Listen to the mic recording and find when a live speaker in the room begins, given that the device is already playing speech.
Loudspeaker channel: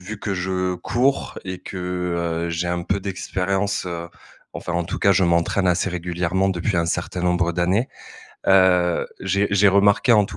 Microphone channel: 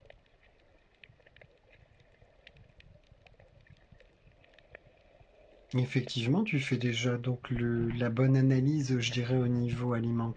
5.7 s

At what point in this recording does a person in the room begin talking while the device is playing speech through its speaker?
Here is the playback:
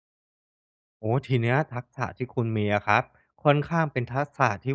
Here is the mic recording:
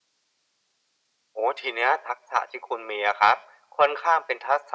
none

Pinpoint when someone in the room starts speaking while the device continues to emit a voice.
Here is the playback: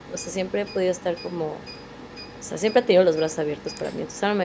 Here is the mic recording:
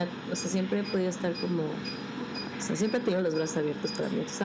none

